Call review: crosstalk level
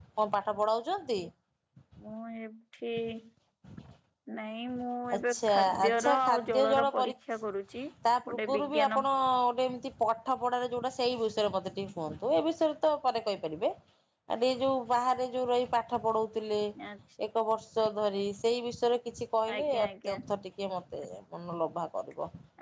present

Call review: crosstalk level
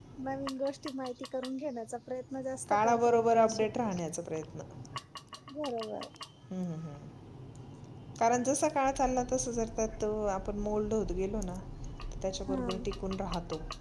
present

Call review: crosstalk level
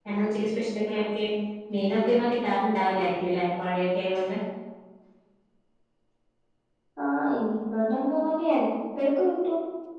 none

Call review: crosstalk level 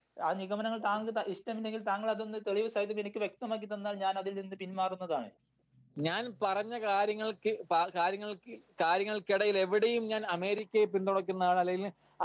none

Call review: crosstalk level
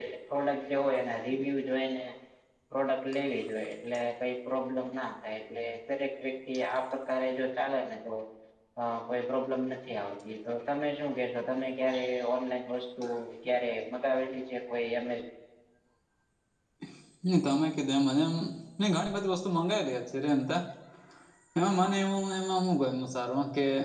none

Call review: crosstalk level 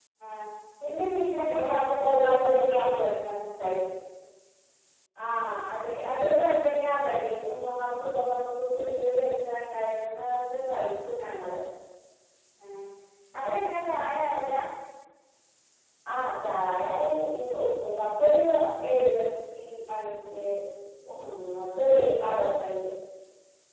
present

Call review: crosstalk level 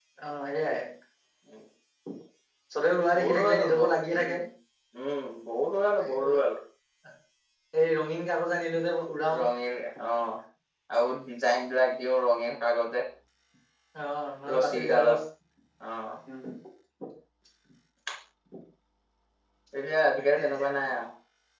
present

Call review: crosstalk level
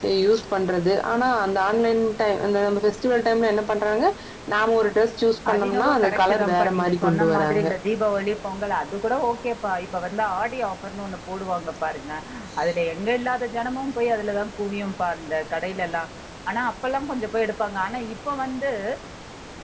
present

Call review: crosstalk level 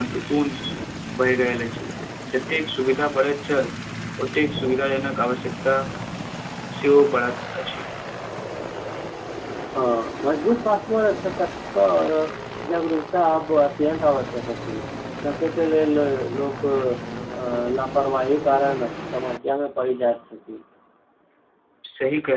none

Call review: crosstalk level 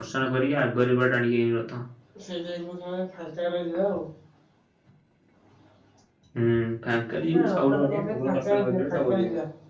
present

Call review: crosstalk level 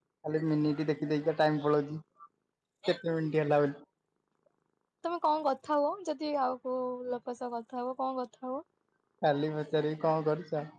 none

